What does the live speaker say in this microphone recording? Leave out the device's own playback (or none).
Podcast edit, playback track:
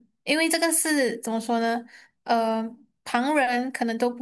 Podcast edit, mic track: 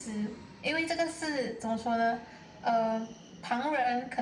none